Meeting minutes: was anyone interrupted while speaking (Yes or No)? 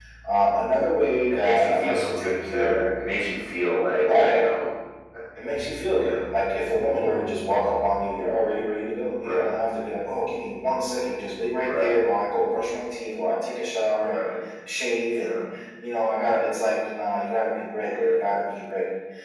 Yes